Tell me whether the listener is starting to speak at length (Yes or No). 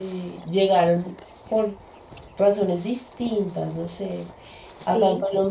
No